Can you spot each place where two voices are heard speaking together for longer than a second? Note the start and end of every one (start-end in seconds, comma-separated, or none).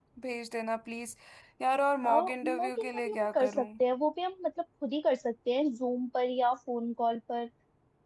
2.1-3.7